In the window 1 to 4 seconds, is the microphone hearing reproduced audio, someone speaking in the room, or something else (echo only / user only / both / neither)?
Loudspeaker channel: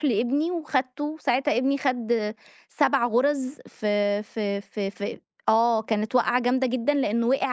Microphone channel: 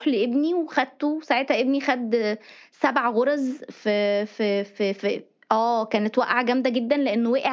echo only